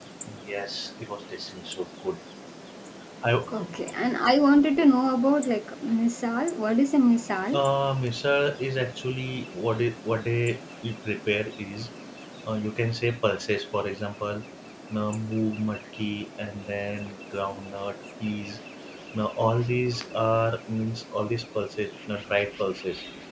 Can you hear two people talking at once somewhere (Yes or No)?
No